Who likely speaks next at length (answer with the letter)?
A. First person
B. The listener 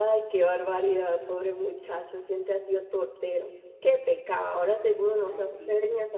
A